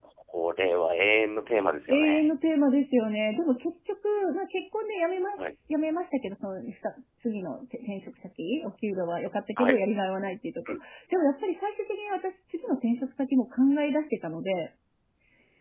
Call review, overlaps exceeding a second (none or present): none